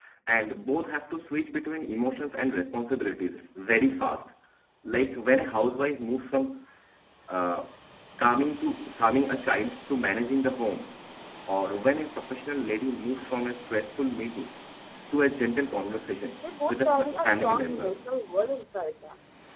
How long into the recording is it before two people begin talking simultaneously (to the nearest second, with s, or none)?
17 s